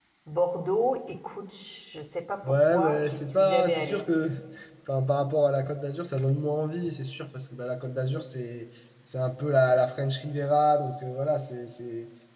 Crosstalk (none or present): present